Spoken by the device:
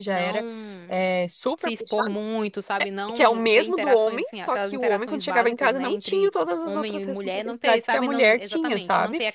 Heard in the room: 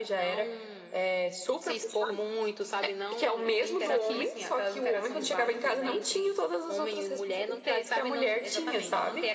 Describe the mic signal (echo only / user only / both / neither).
both